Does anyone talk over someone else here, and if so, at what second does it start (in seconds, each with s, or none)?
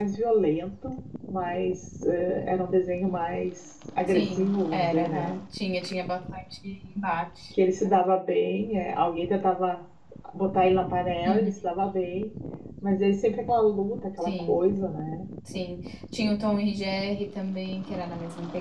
4.1 s